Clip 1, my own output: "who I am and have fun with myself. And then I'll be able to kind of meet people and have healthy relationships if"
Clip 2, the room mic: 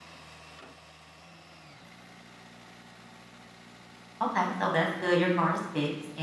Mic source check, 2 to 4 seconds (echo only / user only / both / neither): neither